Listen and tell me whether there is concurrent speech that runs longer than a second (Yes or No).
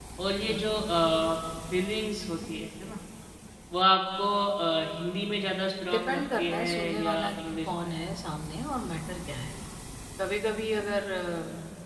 Yes